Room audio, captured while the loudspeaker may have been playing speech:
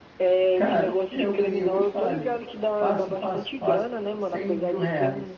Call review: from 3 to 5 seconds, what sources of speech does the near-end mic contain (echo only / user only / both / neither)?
both